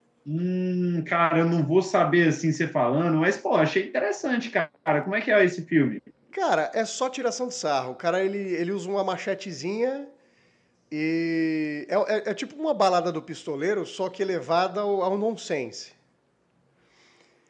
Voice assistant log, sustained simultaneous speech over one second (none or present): none